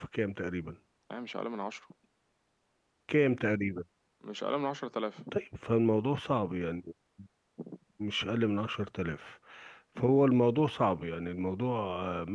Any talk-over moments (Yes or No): No